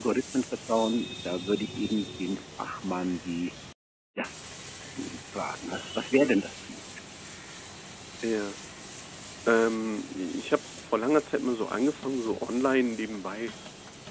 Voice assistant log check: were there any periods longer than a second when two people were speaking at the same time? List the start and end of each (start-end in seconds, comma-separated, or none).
none